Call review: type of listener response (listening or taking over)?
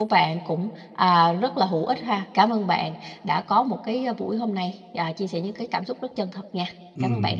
taking over